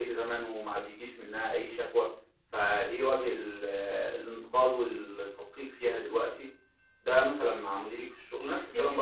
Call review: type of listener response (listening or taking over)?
taking over